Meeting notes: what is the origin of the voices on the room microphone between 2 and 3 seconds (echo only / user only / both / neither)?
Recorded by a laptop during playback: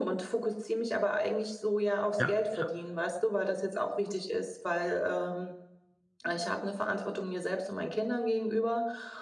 both